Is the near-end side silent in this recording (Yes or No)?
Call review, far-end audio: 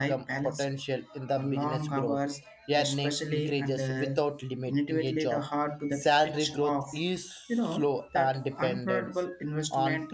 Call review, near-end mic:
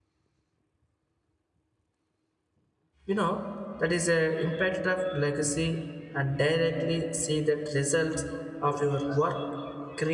No